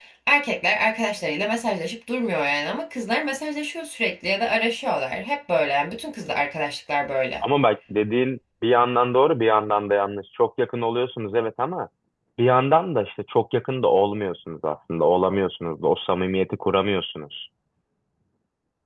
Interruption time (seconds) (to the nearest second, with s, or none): none